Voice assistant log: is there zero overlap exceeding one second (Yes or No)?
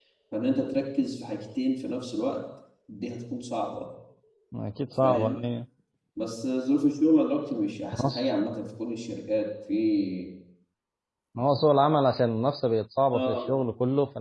Yes